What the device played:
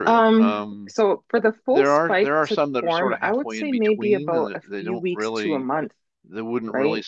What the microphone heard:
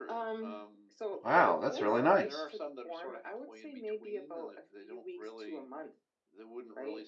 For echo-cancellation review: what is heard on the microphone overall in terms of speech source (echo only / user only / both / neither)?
both